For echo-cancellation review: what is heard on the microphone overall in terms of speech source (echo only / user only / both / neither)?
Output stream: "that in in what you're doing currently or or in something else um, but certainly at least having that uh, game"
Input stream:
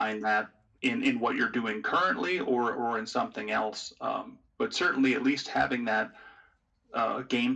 echo only